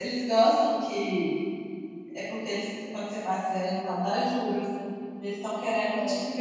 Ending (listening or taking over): listening